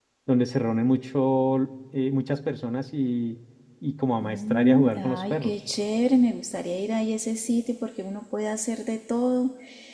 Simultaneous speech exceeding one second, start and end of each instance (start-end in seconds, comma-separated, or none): 4.2-5.5